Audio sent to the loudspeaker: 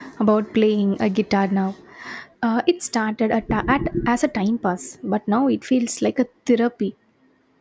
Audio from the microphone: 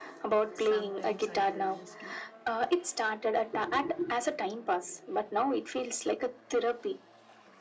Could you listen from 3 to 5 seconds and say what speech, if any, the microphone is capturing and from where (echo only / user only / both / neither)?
echo only